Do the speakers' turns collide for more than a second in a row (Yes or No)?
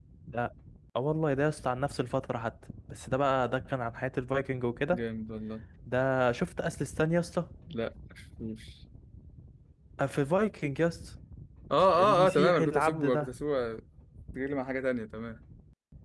Yes